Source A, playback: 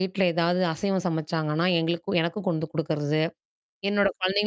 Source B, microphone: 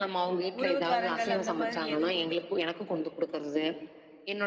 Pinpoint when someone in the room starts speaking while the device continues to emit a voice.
0.6 s

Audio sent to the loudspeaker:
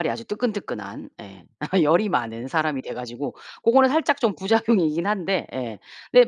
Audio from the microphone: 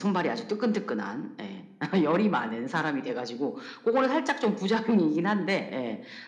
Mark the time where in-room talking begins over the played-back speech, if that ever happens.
none

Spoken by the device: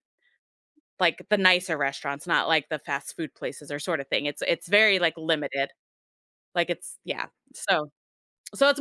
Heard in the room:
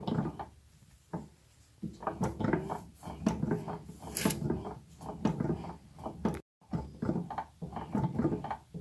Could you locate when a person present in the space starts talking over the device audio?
none

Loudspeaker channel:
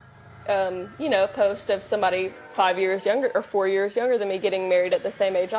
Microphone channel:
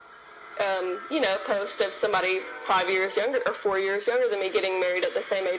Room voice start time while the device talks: none

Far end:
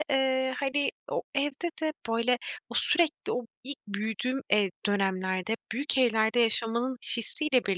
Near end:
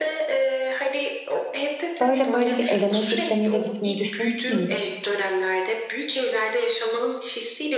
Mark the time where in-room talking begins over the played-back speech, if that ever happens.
2.0 s

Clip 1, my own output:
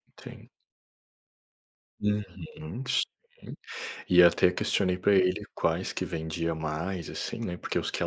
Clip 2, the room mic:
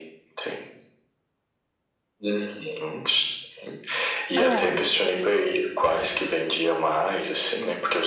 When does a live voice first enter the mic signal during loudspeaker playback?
4.3 s

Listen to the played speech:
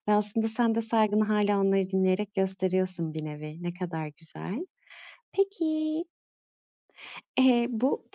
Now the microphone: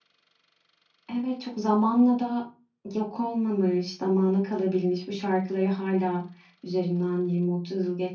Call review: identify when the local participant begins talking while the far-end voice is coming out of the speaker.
1.1 s

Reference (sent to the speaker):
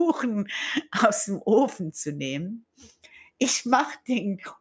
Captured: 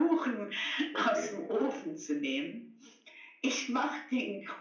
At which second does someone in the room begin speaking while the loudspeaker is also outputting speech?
0.9 s

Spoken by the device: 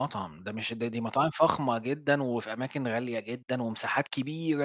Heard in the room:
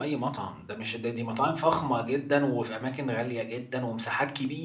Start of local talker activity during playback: none

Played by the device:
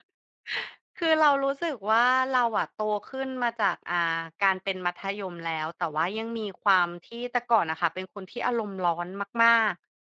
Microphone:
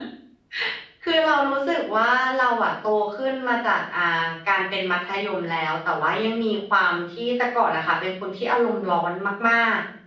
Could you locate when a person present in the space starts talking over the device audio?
none

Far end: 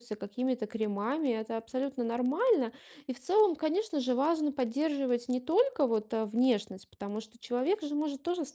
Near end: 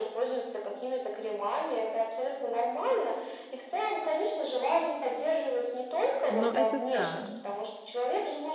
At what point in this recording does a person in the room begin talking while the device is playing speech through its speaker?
6.3 s

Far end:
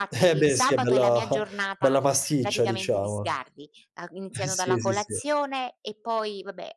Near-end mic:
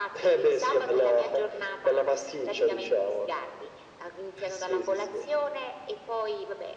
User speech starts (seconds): none

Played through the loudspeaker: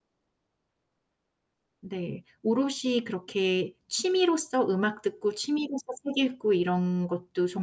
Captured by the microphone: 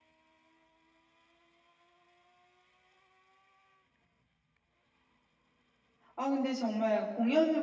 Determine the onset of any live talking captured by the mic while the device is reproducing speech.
6.1 s

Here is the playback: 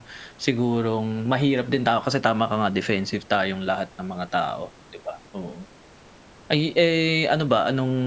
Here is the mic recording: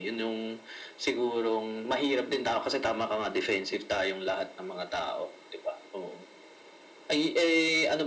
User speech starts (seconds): none

